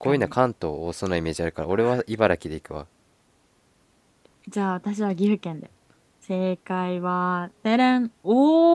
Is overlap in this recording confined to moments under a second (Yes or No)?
Yes